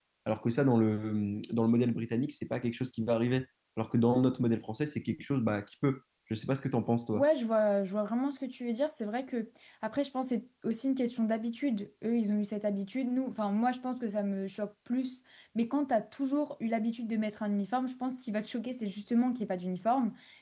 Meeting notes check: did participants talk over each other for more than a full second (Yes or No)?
No